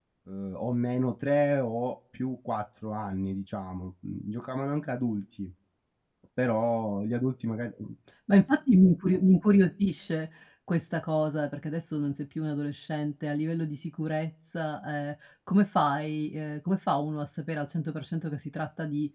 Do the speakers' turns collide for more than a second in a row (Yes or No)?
No